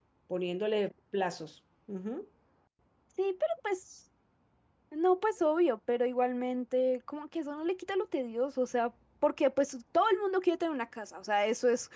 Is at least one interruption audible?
No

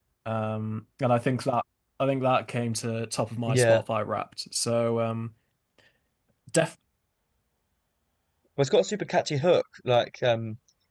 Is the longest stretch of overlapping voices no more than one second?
Yes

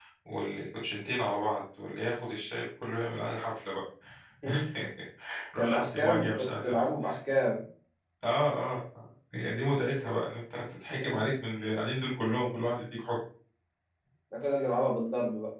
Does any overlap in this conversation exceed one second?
Yes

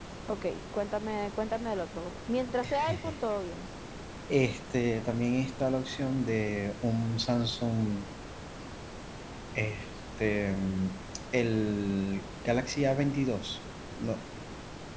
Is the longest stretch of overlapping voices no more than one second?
Yes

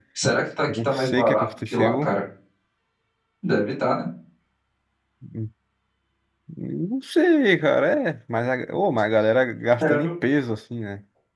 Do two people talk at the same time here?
Yes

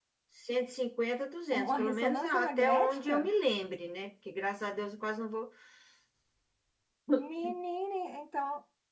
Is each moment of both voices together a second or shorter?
No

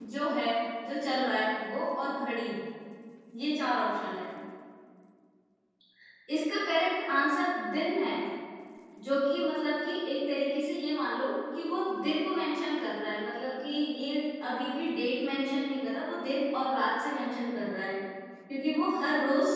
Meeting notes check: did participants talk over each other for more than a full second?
No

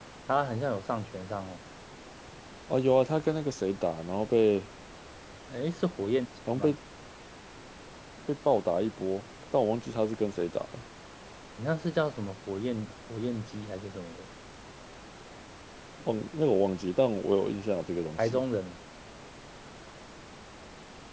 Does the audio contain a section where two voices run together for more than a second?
No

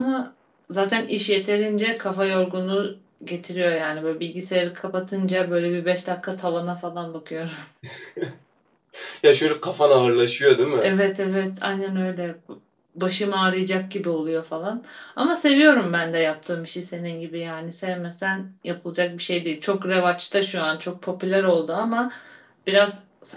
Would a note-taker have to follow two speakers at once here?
No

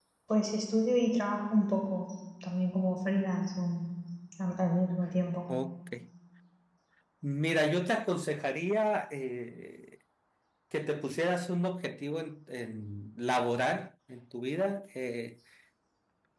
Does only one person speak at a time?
Yes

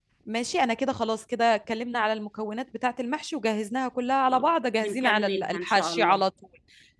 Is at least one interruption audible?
Yes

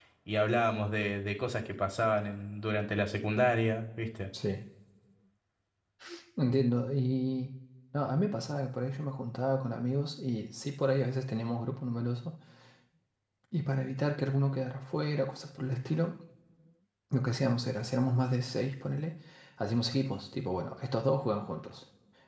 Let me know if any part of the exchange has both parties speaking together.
No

